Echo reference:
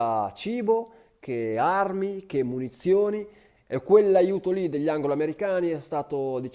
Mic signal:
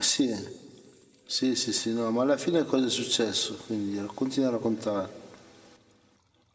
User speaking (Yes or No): Yes